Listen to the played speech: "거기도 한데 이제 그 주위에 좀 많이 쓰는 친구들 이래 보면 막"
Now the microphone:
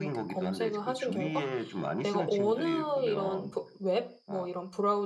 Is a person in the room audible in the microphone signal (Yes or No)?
Yes